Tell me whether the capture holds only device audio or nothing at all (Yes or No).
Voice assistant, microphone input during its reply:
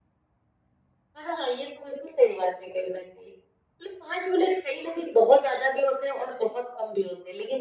Yes